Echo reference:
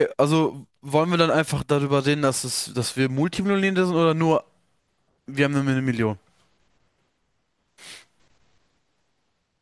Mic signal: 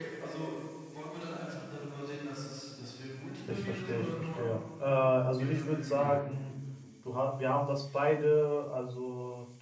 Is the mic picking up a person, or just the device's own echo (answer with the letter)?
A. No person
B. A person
B